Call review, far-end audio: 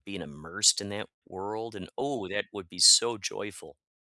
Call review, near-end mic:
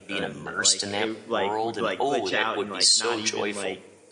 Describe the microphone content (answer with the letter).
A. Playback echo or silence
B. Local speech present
B